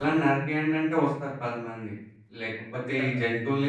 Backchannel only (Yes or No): Yes